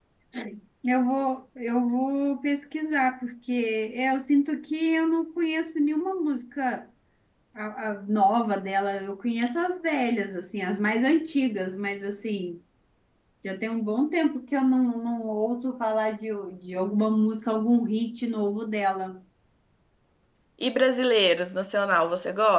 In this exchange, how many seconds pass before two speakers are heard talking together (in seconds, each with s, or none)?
none